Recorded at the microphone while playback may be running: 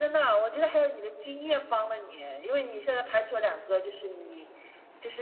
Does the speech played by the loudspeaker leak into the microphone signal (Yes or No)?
Yes